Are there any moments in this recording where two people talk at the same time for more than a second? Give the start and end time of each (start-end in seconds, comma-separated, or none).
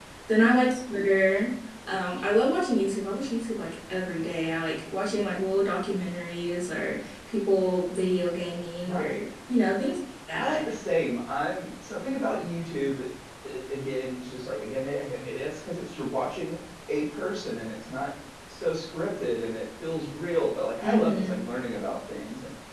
none